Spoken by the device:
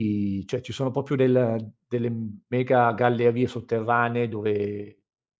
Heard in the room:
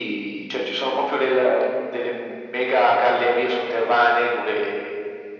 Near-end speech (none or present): none